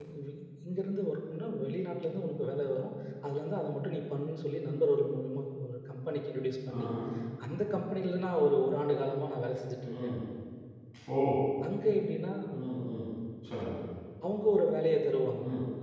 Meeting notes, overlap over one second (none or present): none